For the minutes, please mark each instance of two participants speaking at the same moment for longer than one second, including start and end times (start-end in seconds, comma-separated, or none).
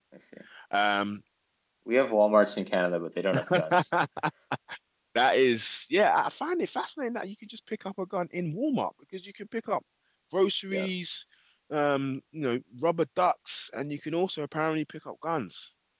none